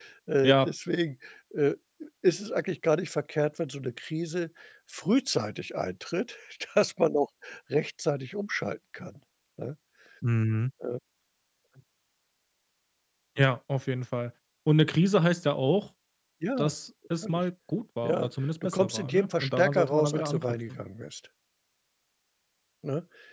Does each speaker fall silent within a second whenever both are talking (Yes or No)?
No